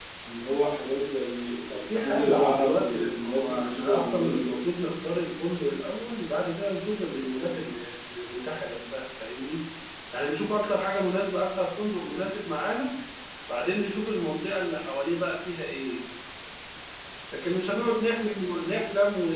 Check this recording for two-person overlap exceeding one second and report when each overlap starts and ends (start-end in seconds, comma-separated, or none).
2.0-4.5